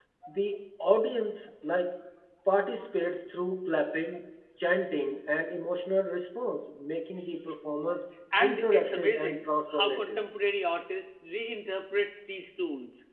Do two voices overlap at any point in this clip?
Yes, from 8.3 s

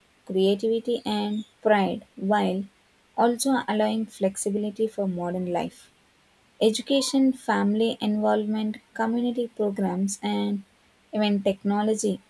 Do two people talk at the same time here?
No

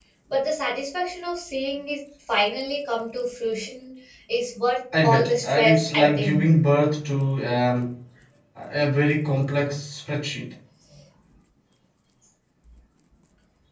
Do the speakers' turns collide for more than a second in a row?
Yes, from 4.9 s

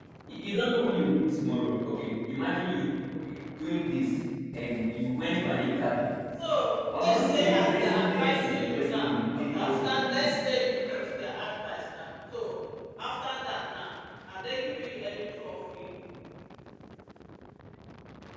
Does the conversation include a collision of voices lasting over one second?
Yes, from 7.0 s

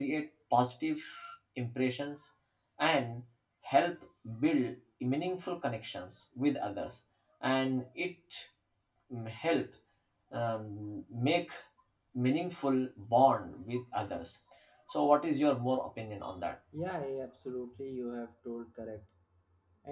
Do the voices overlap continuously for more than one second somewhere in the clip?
No

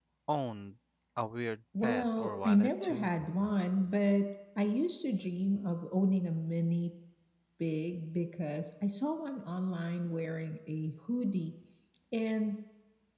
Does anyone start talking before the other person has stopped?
Yes, from 1.7 s

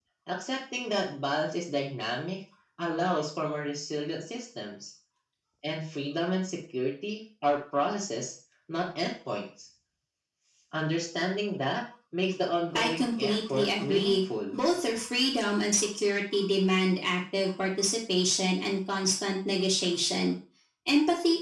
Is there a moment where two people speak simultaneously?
Yes, from 12.8 s

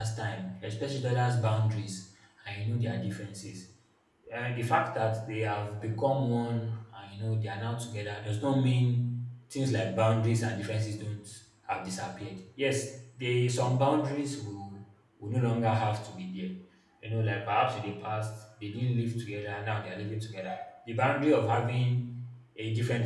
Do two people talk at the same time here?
No

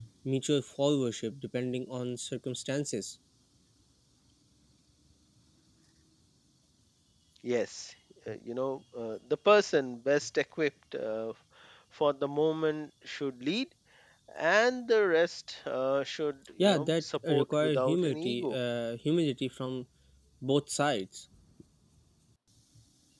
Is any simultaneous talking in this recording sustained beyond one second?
Yes, from 16.6 s

